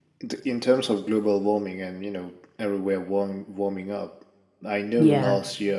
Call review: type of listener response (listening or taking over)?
listening